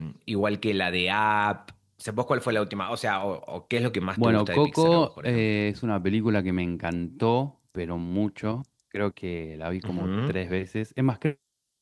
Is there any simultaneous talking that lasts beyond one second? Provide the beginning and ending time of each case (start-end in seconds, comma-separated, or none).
4.2-5.5